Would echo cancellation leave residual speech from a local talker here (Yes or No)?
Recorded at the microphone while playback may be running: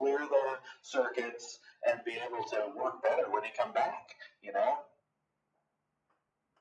No